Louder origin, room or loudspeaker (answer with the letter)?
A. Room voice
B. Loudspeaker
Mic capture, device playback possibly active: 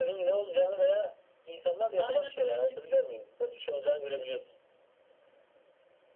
B